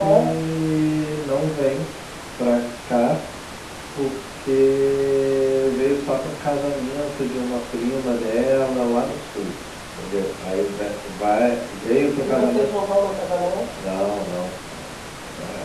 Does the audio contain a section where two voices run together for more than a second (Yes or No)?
No